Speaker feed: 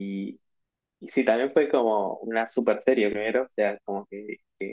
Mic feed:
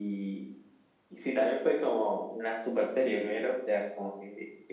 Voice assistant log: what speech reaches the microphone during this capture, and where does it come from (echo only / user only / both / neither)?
echo only